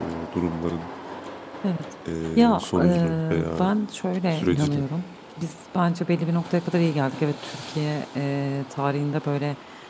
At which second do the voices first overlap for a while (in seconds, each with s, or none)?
2.4 s